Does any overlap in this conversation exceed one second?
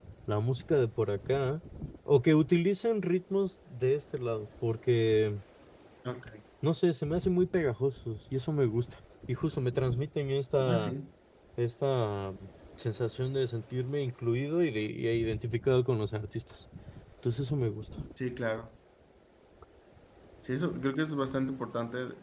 No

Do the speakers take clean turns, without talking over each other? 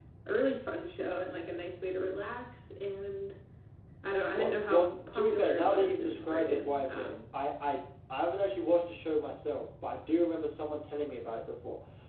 No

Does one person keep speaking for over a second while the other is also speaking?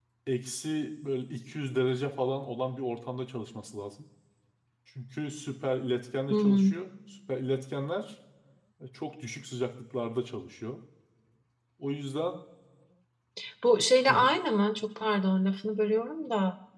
No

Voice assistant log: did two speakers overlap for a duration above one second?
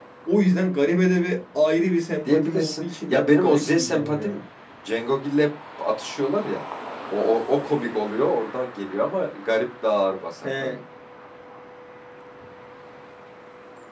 Yes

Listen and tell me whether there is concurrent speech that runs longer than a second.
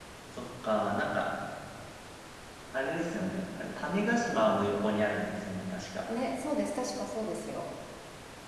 No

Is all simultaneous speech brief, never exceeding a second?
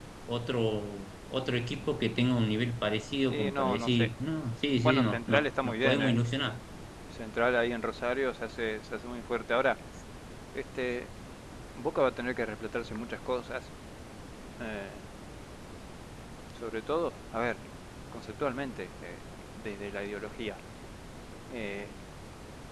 No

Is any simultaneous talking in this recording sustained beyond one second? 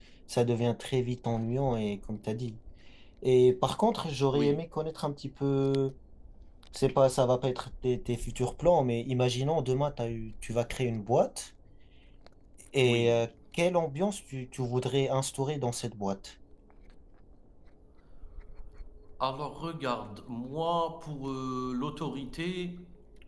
No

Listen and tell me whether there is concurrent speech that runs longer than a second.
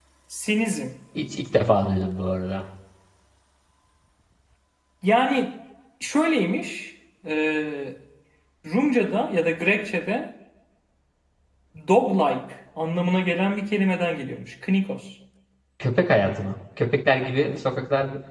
No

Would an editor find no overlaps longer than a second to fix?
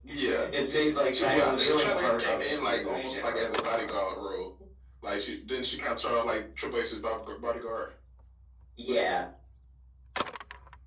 No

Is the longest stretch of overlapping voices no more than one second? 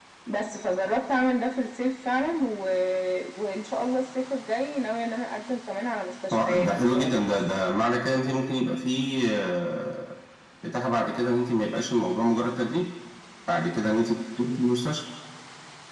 No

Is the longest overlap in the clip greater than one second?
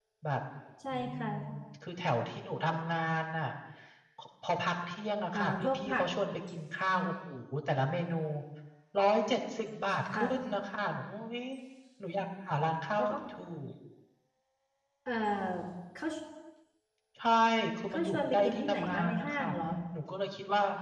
Yes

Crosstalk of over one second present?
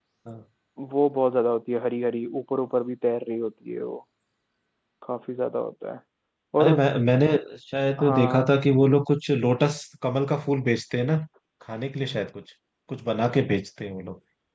No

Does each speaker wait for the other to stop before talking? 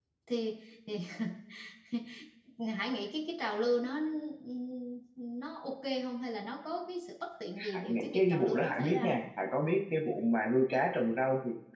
No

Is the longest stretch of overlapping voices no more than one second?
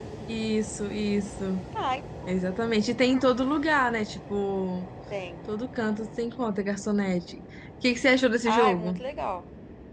Yes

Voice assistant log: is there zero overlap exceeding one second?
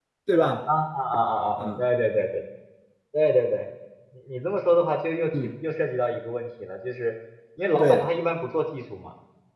Yes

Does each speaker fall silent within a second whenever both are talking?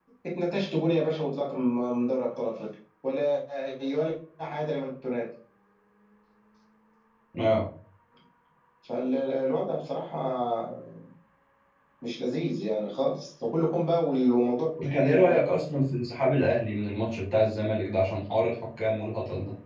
Yes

